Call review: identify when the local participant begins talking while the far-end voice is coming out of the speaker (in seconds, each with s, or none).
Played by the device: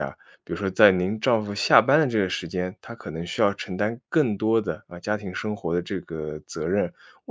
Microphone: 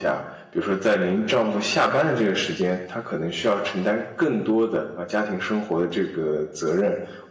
none